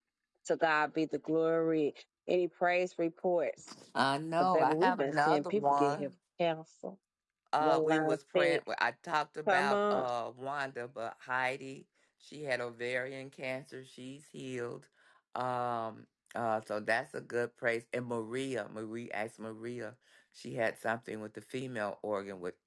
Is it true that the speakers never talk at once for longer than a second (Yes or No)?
No